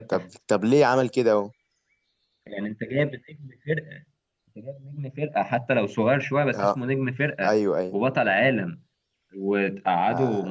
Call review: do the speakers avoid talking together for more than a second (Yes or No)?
Yes